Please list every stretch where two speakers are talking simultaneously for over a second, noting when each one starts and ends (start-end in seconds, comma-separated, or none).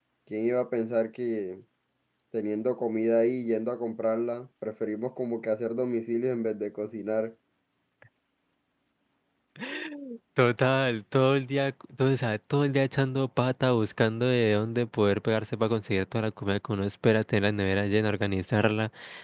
none